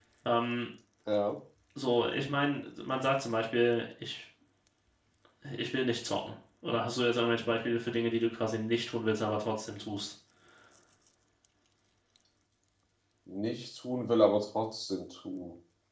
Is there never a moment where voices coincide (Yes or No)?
Yes